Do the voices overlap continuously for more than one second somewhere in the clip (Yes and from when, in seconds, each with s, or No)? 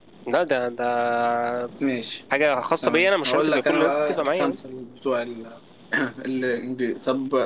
Yes, from 2.8 s